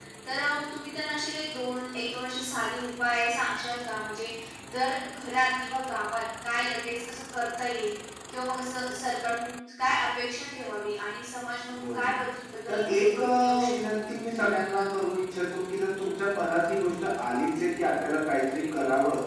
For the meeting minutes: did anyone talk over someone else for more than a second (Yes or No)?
Yes